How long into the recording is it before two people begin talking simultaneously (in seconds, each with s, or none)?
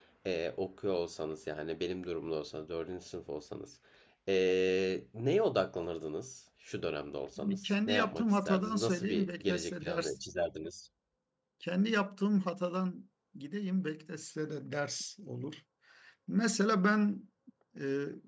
7.4 s